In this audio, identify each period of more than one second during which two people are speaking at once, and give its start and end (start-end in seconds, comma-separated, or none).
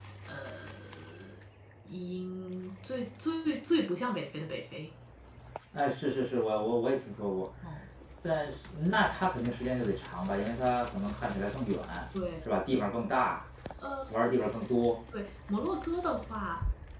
none